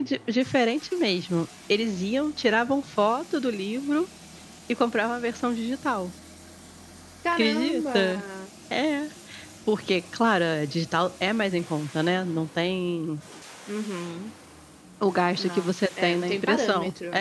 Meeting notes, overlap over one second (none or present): present